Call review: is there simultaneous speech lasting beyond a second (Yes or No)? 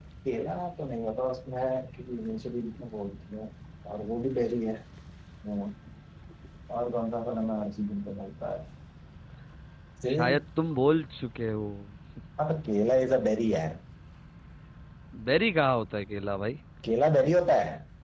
No